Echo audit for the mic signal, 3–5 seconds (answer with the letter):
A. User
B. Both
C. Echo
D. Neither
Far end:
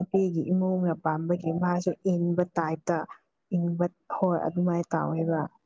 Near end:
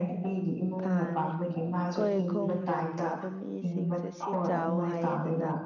B